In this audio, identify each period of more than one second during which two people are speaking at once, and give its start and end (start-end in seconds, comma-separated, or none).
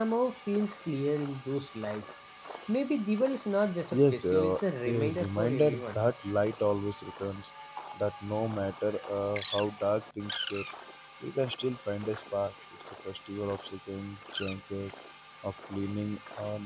3.9-6.0